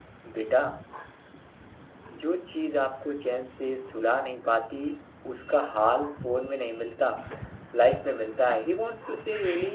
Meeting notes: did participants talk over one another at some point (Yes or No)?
No